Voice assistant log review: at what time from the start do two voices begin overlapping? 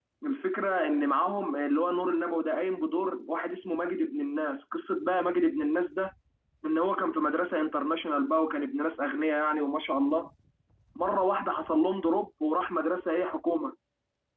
none

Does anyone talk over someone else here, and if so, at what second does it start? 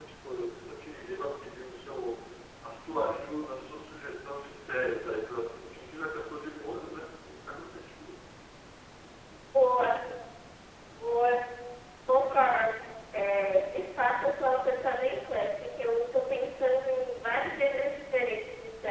none

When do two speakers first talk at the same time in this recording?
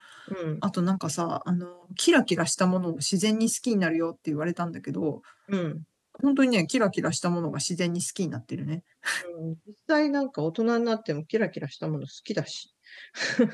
none

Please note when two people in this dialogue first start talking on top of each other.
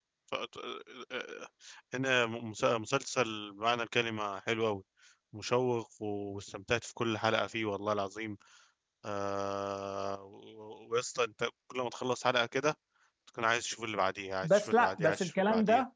14.4 s

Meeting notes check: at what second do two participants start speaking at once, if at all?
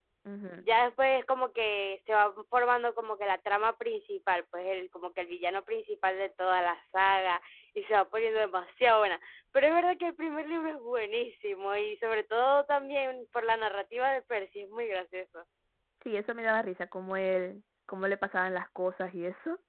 none

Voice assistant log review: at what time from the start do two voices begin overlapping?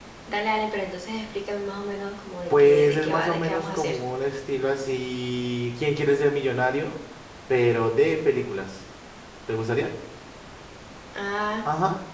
2.5 s

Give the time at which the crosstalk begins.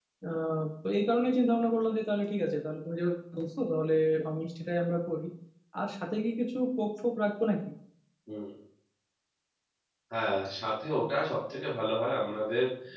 none

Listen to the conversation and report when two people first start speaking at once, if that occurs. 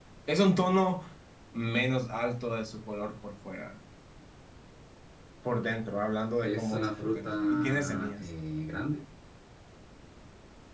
6.4 s

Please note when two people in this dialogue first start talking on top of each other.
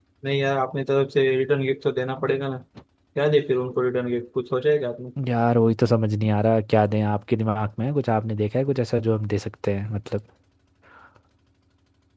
none

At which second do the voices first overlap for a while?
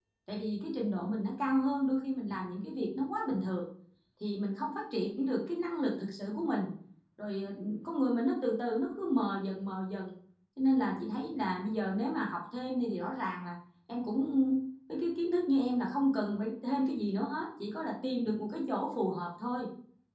none

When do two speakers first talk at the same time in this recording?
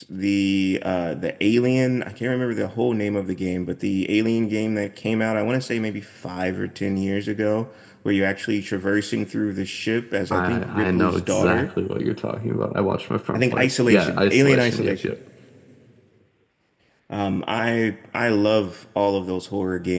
10.3 s

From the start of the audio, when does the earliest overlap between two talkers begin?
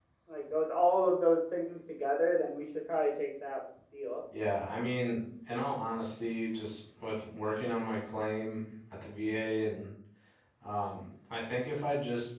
none

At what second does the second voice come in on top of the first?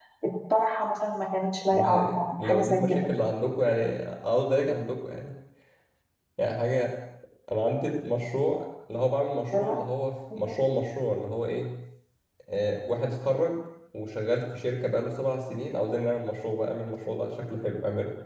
1.7 s

